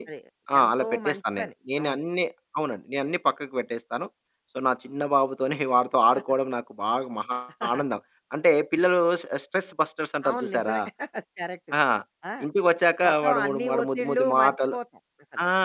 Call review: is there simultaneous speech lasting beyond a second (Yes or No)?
Yes